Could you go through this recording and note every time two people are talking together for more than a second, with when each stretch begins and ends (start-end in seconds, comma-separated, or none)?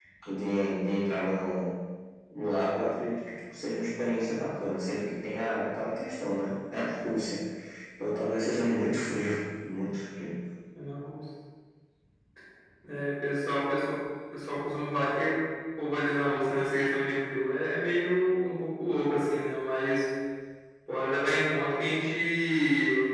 none